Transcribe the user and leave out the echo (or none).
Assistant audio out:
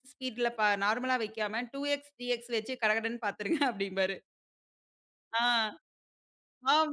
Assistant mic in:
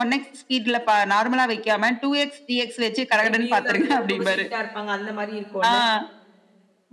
இப்படி இருந்தாலும் எல்லாரும் ரொம்ப ஸ்ட்ரிக்ட்டா இருப்பாங்க. அந்த மாரி இருக்கும்ல.